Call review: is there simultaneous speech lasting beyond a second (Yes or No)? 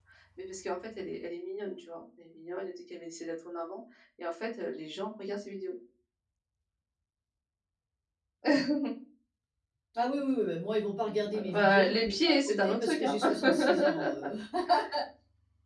Yes